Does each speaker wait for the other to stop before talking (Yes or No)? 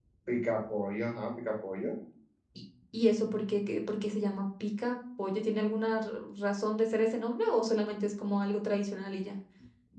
Yes